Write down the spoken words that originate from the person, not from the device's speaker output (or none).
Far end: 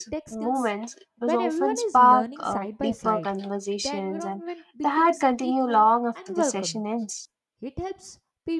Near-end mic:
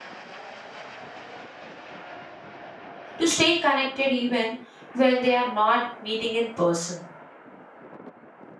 to stay connected even when they are not meeting in person.